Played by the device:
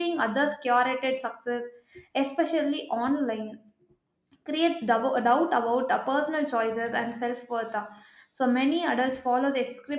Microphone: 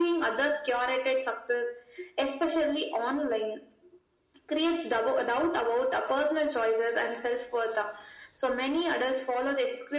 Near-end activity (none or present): none